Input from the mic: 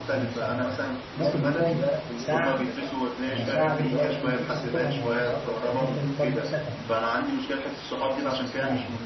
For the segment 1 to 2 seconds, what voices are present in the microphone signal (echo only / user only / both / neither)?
both